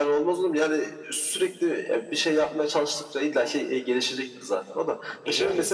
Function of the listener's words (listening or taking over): listening